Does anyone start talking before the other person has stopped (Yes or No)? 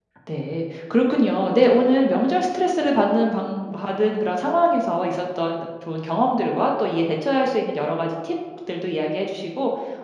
No